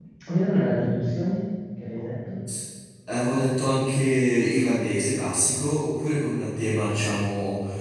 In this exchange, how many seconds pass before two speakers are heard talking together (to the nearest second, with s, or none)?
none